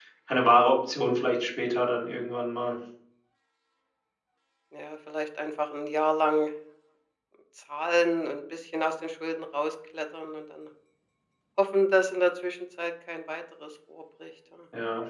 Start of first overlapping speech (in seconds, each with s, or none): none